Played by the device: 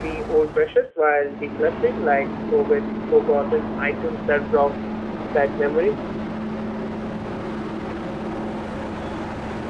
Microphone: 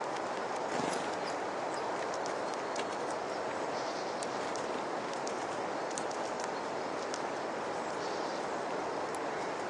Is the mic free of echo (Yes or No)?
Yes